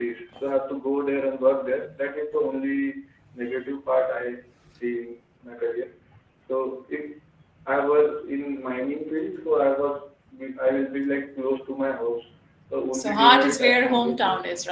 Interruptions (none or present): present